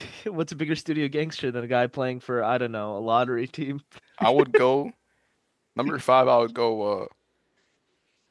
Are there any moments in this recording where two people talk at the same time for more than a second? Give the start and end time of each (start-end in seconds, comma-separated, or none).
none